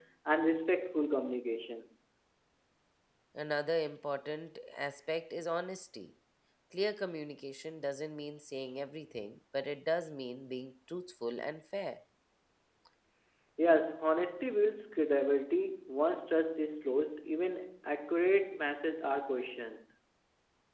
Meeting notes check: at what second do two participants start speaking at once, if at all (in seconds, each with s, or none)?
none